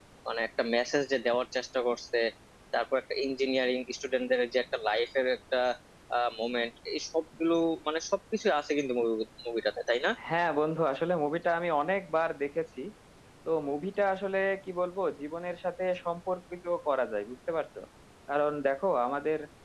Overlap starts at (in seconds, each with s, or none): none